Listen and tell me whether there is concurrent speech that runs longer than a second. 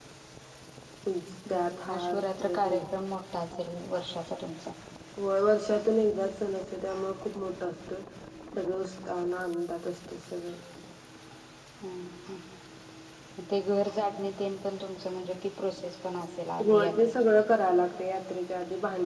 Yes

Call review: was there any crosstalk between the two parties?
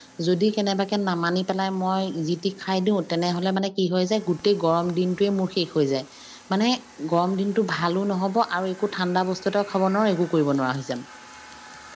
No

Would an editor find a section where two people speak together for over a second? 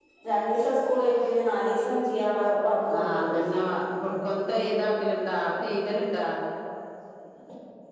No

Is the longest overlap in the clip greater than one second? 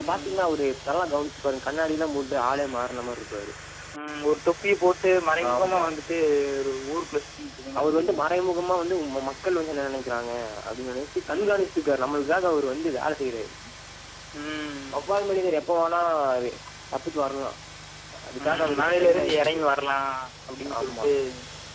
Yes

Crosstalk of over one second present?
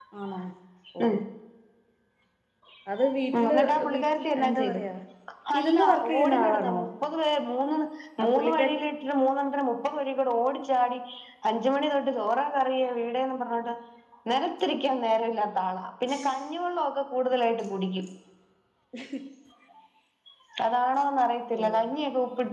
Yes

